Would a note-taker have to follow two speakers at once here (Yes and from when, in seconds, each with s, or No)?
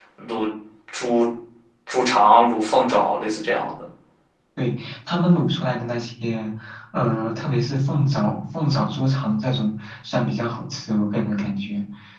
No